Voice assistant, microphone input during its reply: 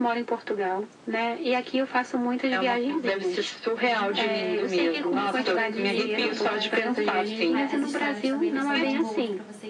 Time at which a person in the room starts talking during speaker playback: 3.8 s

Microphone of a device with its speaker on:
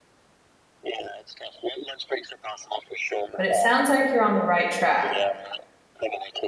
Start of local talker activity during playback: 3.4 s

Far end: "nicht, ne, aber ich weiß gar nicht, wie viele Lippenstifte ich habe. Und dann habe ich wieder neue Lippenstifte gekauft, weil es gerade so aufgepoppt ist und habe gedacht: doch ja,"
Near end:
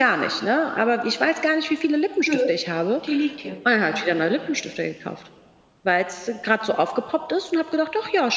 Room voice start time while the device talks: 2.3 s

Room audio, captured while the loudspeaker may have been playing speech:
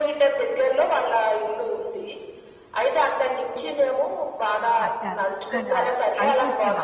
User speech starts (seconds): 4.7 s

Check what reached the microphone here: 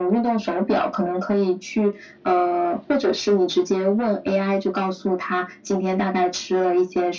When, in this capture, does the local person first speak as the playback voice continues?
none

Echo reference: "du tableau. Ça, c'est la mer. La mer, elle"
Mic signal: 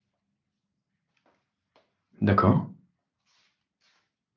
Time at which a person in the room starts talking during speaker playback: 2.2 s

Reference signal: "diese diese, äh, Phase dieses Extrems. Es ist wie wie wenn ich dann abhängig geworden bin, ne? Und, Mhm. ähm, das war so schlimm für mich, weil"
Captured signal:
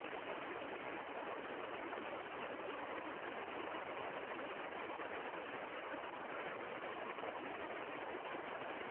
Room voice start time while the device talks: none

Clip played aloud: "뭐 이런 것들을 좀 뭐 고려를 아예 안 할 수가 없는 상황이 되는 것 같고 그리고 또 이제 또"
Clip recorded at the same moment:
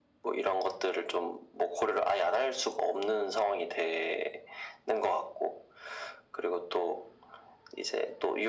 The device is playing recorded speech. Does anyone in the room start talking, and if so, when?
none

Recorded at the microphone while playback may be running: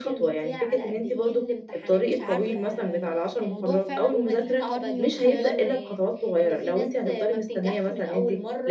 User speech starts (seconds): 2.0 s

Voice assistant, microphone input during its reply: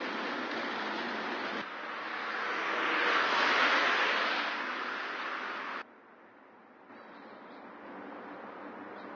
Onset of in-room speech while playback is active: none

